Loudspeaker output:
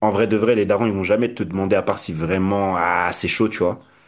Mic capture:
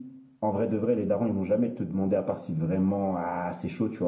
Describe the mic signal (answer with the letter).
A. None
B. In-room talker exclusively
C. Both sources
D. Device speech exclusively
D